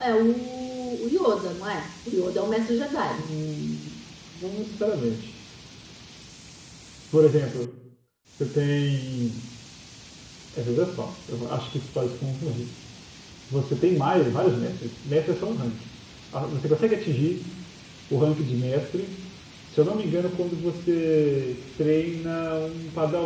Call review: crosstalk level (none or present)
none